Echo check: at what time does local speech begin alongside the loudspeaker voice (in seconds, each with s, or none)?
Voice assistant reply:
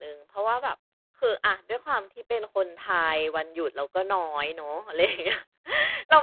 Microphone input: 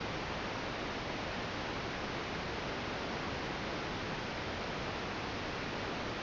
none